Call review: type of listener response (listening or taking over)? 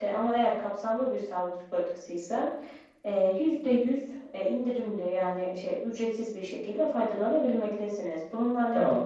taking over